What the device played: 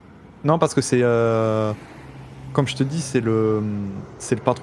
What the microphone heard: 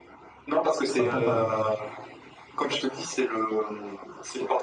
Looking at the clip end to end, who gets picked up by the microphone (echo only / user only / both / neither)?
both